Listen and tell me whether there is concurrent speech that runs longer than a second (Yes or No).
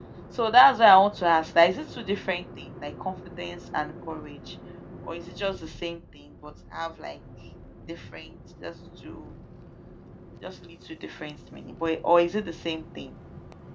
No